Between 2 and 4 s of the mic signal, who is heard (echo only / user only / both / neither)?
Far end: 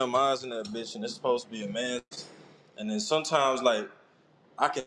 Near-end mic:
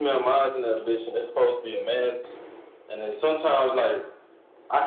echo only